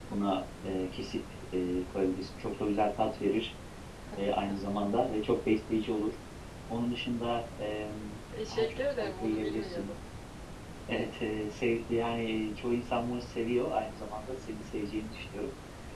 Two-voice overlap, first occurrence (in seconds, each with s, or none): 8.3 s